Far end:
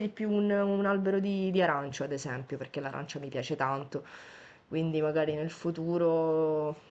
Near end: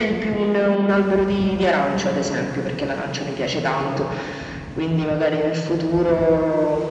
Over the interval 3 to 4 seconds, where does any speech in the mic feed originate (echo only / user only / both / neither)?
echo only